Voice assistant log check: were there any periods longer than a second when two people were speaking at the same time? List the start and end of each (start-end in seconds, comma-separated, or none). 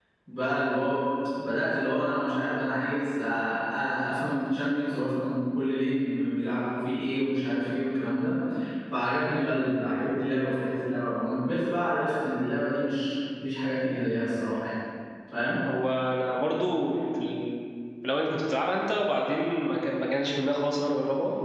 none